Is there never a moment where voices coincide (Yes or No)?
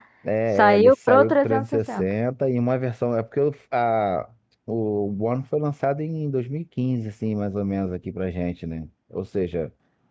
No